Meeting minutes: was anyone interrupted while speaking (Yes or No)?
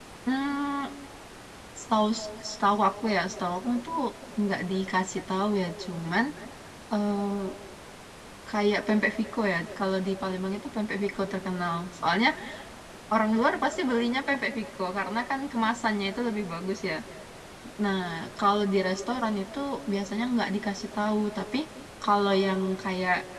No